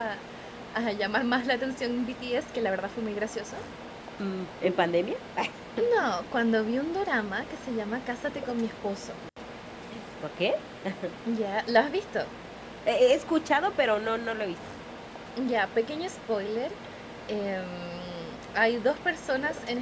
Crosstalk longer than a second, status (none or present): none